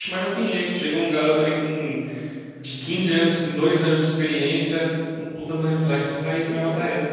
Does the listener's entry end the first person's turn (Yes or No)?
Yes